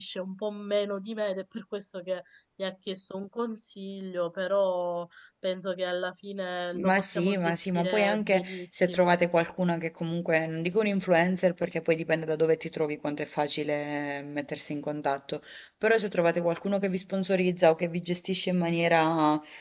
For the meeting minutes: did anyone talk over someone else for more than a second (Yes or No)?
Yes